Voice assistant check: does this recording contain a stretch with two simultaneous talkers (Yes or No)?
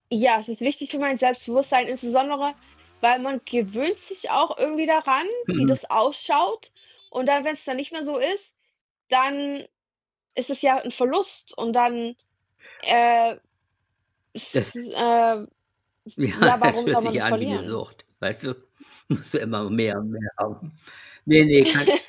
Yes